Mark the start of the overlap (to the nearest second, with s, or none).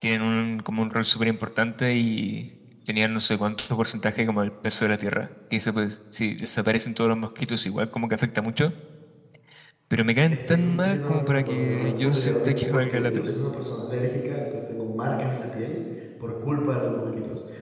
10 s